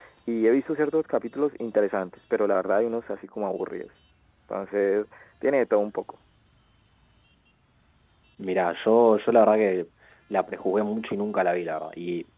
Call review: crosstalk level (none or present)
none